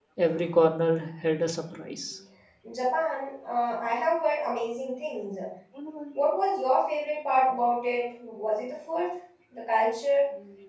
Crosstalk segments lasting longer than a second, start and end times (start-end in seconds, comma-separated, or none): none